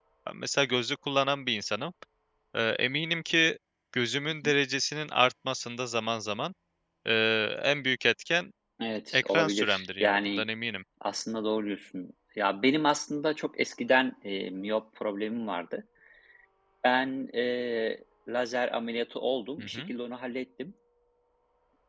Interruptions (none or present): present